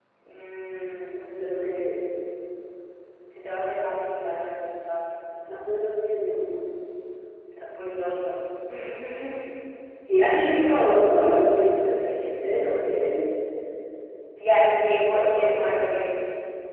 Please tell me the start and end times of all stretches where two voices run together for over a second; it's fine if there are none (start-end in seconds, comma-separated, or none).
14.5-15.8